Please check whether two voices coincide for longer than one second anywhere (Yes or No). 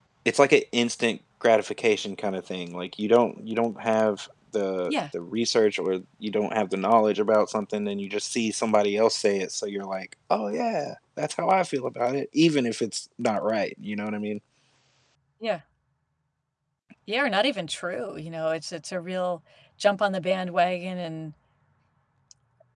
No